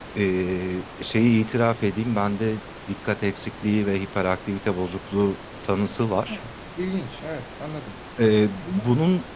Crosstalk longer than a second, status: none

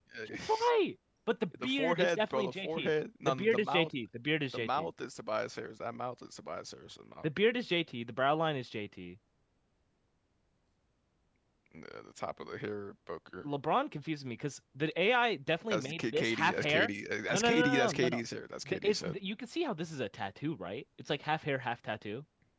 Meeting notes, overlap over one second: present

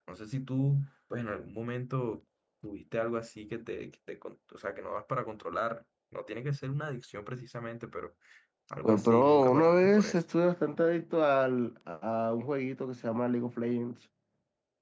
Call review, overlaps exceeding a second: present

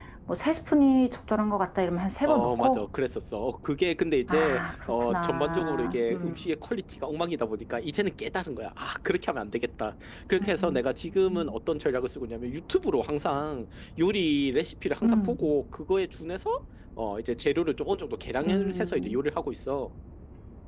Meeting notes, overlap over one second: present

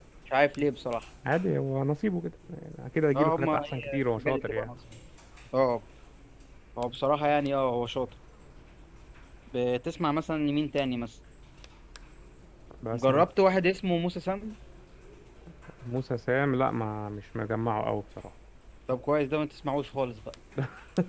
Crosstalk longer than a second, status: present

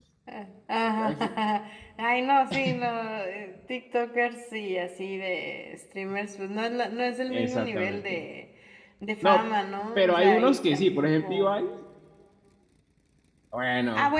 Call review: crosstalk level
present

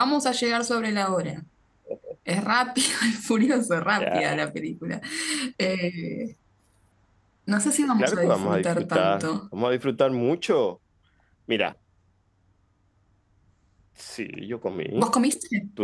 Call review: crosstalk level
present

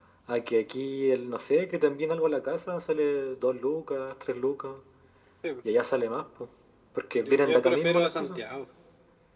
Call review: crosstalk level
present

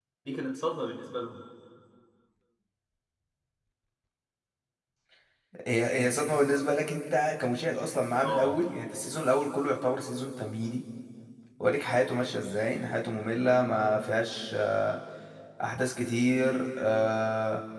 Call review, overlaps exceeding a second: none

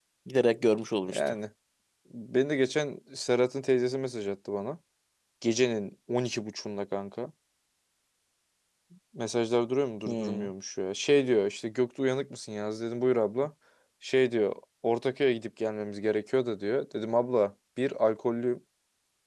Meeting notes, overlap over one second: none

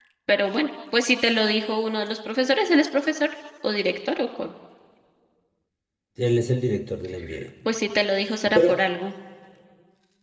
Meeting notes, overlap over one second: none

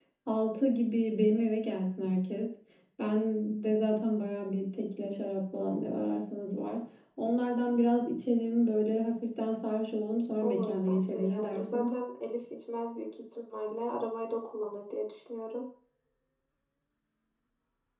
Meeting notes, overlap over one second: present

